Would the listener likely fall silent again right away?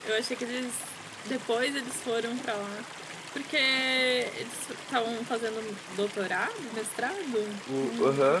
No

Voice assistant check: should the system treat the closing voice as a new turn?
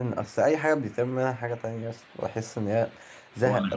No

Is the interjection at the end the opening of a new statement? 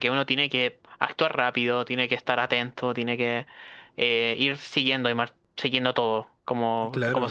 Yes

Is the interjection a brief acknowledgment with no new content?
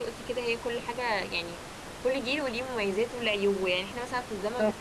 Yes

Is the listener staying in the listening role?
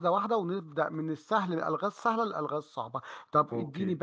Yes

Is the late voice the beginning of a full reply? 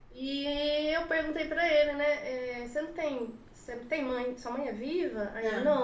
No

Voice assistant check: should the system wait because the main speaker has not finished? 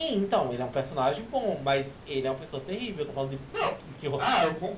No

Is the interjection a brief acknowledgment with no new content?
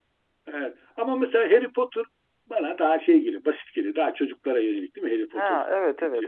No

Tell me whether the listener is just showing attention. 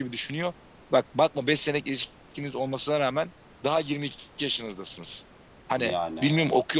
Yes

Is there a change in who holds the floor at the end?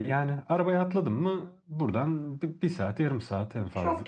Yes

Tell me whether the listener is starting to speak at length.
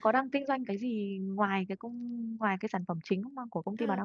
Yes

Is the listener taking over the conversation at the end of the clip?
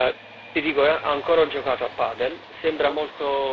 No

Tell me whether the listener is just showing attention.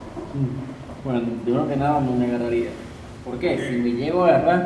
Yes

